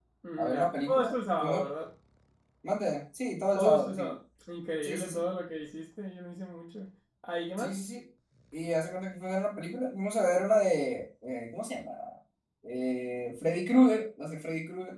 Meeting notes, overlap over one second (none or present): present